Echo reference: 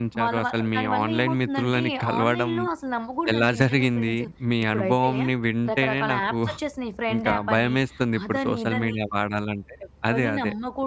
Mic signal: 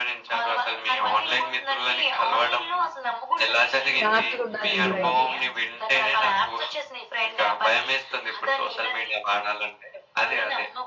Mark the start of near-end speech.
4.0 s

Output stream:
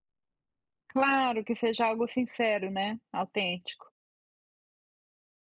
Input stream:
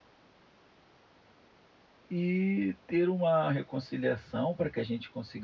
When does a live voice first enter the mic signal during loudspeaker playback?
2.1 s

